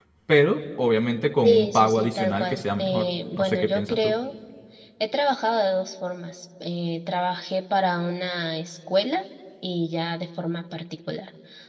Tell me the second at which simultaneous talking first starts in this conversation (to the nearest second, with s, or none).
1 s